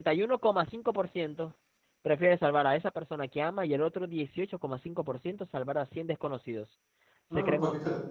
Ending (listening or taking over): taking over